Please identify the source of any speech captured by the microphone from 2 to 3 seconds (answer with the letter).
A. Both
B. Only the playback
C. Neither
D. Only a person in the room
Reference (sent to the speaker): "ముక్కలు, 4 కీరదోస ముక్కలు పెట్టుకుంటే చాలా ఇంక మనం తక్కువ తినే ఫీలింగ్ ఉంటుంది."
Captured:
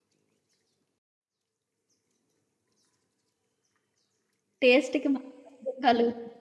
C